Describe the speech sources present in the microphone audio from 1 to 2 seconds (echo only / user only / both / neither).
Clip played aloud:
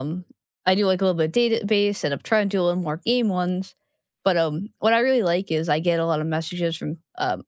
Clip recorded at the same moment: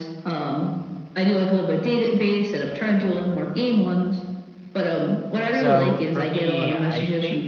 echo only